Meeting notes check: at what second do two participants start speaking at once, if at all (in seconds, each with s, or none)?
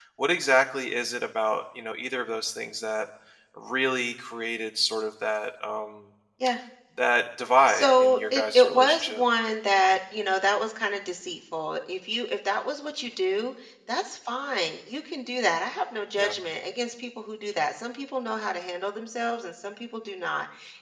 7.7 s